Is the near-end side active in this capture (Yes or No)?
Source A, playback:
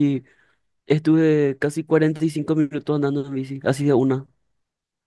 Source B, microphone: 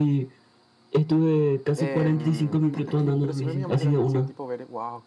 Yes